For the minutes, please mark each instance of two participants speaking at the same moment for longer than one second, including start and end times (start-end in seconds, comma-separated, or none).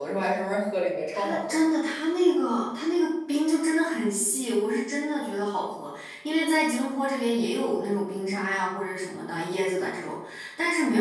none